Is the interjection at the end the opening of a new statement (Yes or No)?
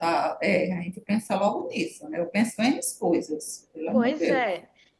Yes